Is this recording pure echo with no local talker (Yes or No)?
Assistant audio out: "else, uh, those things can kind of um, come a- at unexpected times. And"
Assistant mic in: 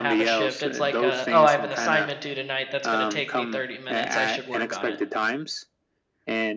No